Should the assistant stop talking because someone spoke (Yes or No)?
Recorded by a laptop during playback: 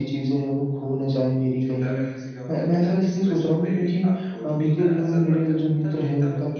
Yes